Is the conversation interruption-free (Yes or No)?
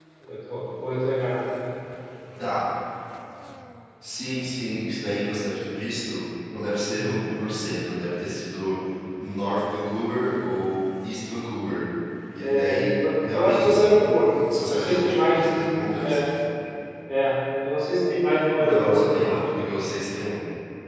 No